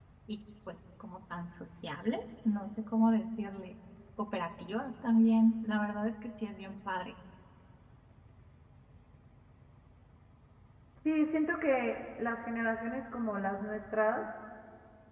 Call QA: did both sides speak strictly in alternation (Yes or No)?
Yes